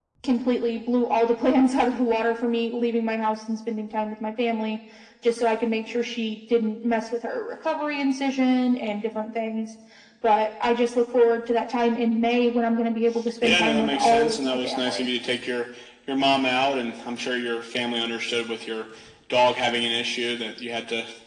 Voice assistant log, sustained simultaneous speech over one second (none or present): present